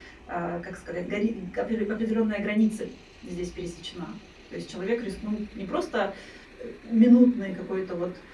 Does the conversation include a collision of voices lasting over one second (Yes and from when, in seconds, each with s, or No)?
No